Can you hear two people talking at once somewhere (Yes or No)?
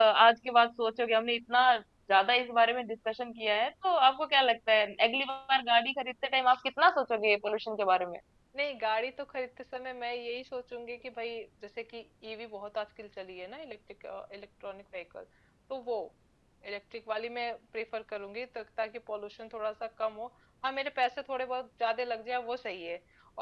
No